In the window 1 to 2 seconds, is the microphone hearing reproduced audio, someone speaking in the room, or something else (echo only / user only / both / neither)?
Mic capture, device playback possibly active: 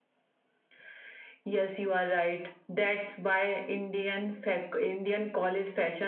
echo only